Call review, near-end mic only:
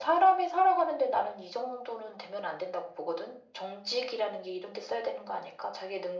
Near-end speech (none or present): none